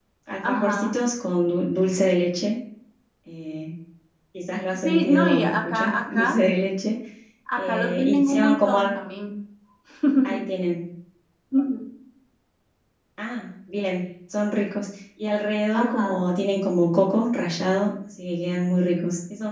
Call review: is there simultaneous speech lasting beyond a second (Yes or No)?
Yes